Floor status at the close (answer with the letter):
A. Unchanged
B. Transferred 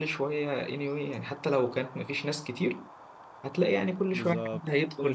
B